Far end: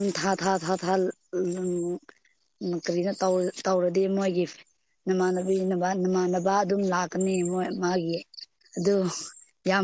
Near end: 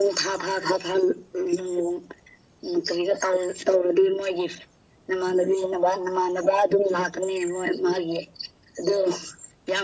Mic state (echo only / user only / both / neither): echo only